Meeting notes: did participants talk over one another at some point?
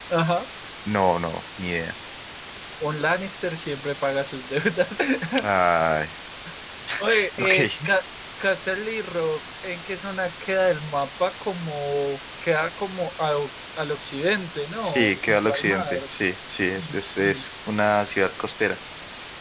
Yes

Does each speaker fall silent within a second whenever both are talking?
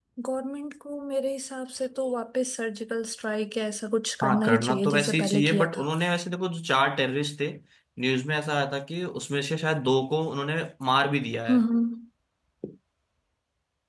No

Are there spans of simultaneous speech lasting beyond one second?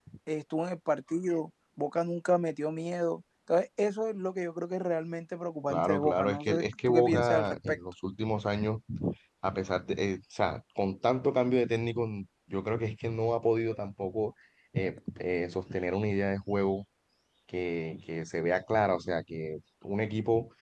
Yes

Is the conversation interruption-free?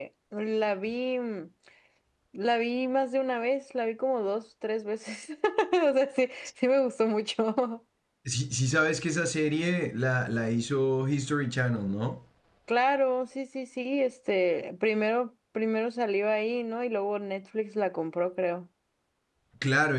Yes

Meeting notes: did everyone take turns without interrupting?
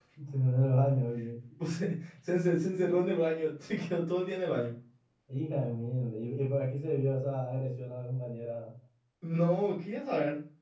Yes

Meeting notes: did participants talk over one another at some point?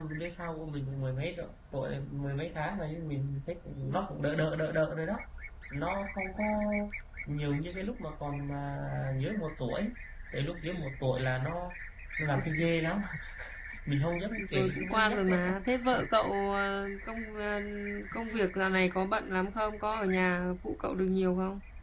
Yes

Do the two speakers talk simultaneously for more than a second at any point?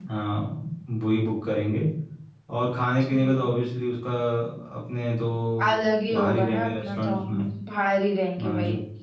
Yes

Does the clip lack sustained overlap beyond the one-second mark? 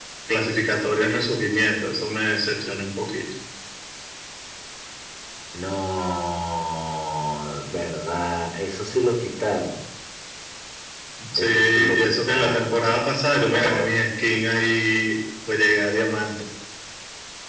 No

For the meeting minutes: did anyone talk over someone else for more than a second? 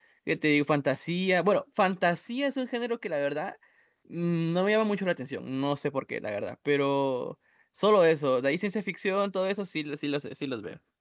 No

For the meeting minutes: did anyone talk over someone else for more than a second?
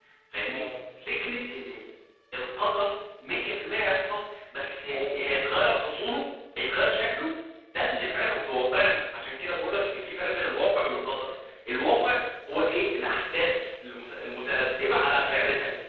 Yes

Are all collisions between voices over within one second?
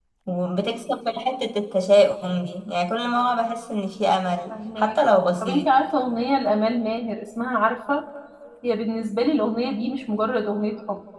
No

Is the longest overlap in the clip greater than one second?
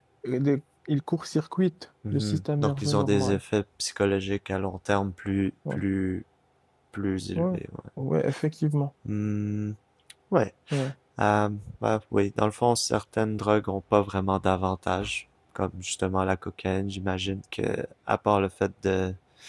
Yes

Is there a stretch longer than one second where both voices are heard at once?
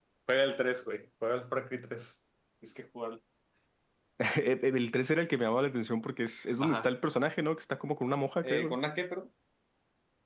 No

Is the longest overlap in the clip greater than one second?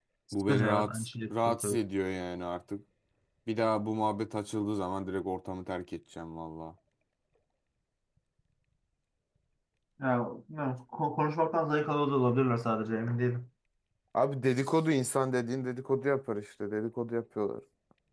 Yes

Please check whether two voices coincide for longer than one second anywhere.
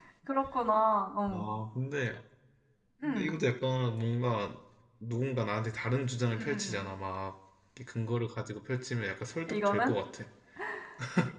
No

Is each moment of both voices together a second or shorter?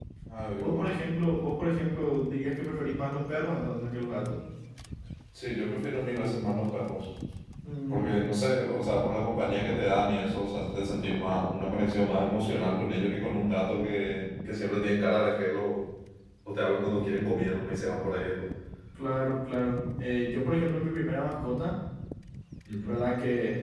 Yes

